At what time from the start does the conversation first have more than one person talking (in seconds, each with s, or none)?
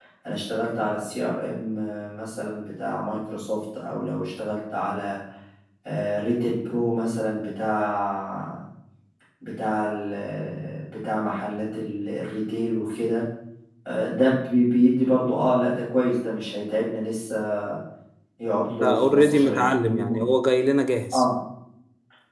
18.7 s